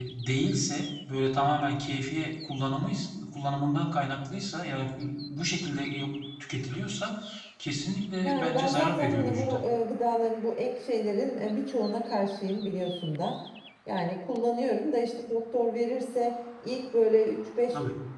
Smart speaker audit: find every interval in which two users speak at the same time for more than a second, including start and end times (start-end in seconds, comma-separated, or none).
8.2-9.6